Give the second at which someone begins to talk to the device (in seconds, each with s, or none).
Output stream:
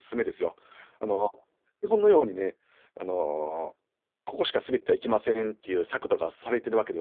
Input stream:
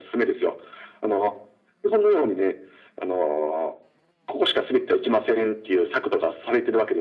none